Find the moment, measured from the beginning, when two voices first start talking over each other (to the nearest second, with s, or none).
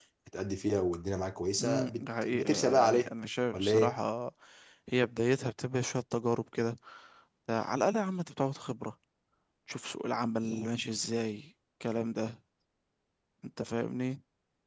2 s